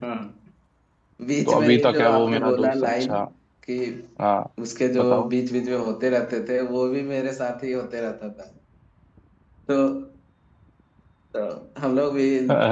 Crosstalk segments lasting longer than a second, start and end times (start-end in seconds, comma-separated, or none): 1.4-3.1